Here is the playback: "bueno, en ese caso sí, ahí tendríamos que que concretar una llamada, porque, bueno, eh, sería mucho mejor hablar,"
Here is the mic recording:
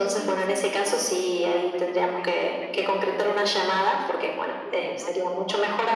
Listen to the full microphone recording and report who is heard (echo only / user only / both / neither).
both